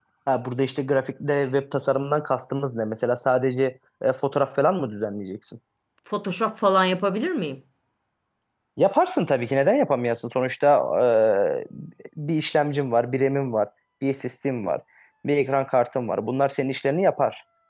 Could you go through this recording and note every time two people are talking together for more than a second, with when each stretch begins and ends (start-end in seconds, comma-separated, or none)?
none